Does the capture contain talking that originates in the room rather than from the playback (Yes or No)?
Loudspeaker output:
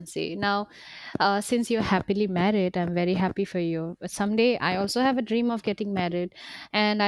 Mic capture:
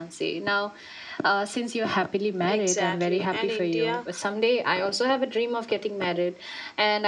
Yes